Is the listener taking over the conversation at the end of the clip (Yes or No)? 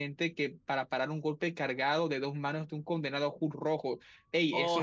Yes